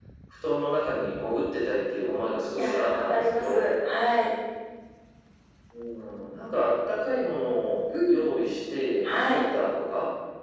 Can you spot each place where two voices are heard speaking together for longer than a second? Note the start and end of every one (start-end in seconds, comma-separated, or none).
2.5-3.7